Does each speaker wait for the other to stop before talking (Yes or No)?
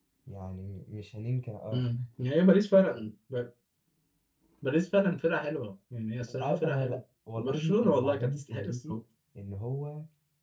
No